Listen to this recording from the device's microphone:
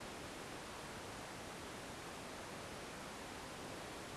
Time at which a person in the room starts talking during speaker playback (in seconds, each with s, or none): none